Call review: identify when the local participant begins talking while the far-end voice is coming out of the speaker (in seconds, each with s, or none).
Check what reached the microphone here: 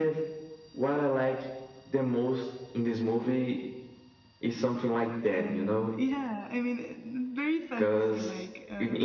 5.3 s